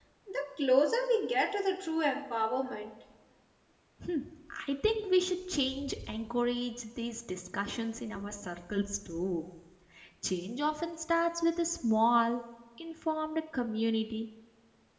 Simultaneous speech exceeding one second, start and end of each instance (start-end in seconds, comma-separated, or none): none